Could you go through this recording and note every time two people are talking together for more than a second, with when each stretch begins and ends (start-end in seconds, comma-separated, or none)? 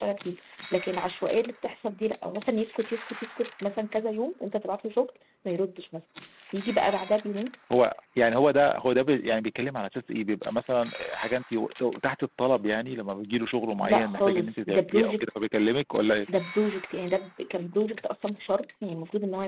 13.8-15.2